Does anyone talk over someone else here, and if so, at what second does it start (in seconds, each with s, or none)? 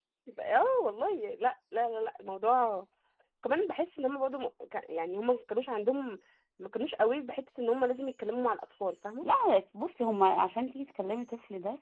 none